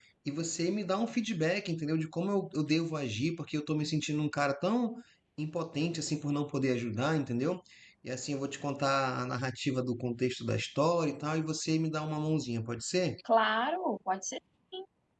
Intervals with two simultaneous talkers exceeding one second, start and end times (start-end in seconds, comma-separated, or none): none